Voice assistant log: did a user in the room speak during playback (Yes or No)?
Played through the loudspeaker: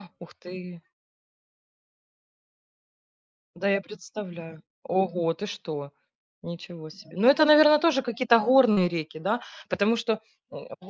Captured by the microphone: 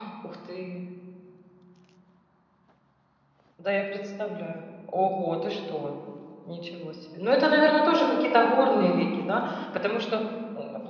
No